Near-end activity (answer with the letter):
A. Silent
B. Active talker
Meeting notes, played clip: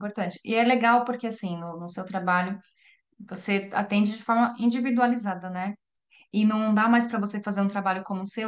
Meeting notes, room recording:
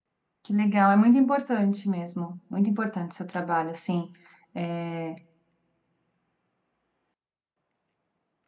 B